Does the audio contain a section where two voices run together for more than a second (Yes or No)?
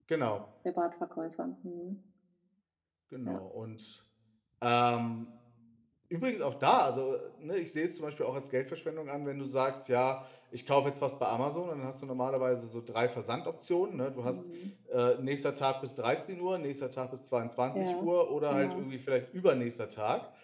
No